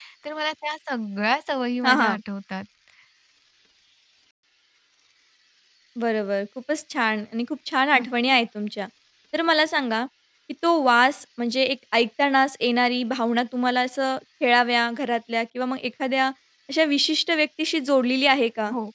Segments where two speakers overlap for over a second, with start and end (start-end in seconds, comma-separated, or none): none